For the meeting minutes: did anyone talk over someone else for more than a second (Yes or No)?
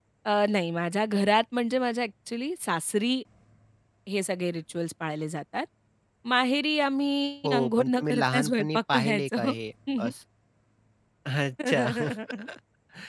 Yes